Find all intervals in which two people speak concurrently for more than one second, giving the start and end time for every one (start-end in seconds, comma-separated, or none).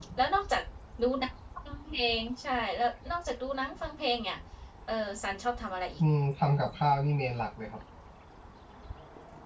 none